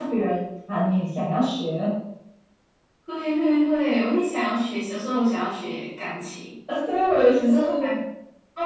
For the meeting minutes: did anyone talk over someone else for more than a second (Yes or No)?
No